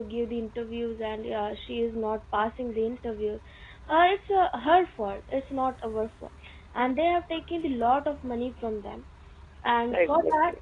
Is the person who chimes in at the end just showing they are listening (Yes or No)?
Yes